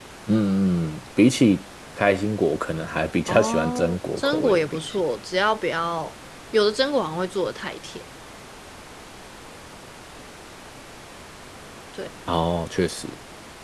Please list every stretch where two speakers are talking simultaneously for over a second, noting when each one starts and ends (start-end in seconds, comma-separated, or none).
3.3-5.0